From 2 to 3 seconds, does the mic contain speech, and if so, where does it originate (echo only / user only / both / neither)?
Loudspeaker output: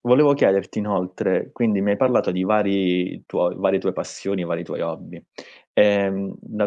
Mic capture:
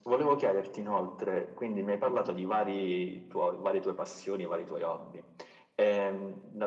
echo only